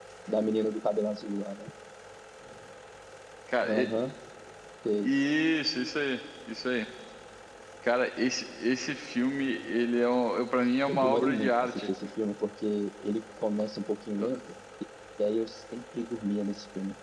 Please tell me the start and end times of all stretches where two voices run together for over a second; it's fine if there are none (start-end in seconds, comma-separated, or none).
10.9-12.1